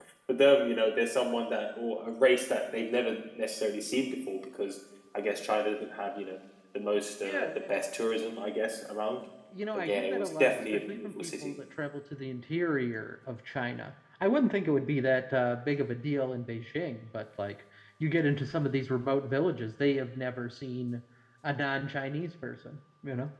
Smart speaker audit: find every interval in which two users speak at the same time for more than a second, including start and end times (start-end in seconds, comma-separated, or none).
9.8-11.5